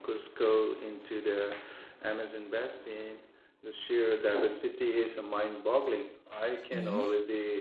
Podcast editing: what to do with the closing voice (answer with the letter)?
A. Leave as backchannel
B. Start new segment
A